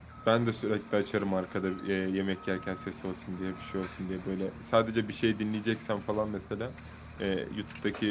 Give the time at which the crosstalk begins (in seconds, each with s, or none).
none